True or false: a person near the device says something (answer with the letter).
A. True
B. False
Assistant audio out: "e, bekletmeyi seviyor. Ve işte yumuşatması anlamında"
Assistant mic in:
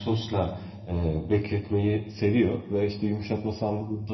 B